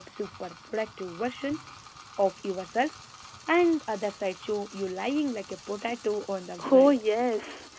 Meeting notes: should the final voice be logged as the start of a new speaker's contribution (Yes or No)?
Yes